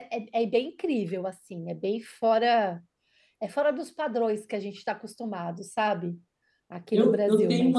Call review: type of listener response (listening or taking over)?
taking over